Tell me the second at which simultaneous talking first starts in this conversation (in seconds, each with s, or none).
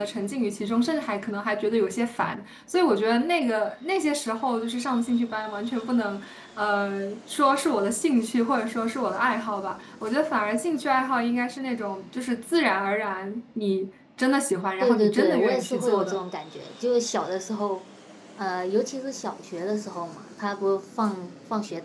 14.8 s